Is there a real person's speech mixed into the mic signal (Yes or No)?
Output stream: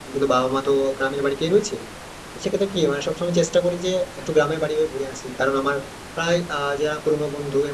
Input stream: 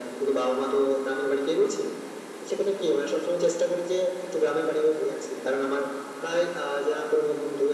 No